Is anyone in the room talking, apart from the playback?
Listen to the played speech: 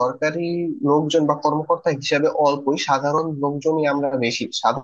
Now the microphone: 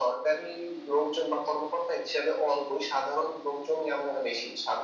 No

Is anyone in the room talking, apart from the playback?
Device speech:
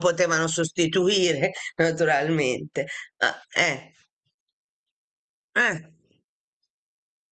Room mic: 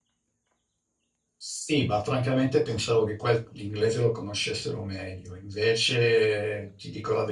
Yes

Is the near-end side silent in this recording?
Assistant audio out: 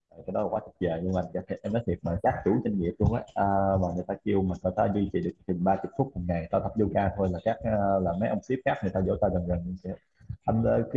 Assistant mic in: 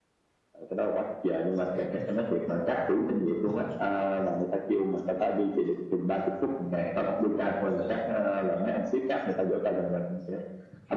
No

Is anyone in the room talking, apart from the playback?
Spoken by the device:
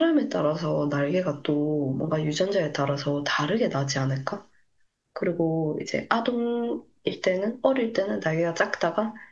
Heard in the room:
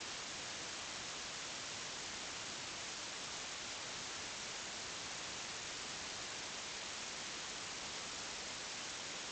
No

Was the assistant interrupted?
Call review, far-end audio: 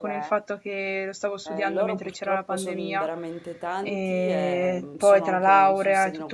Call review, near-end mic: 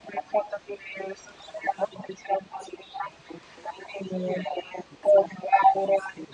No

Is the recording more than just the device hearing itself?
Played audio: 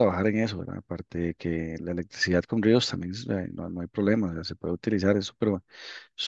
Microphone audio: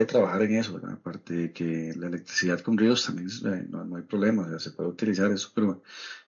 No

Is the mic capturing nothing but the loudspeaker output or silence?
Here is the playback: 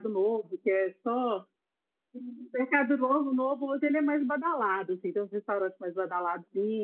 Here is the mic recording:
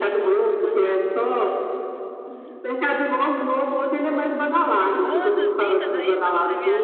No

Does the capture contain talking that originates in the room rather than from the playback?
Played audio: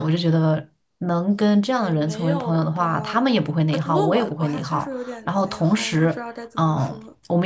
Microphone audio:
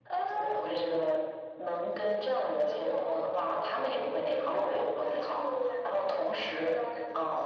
No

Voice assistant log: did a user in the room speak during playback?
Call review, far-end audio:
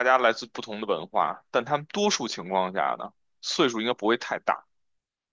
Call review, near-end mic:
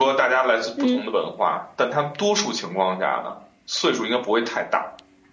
Yes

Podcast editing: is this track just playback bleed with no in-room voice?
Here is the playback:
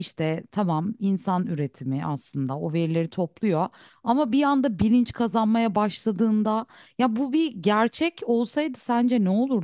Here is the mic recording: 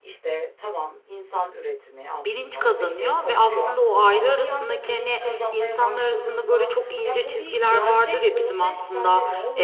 No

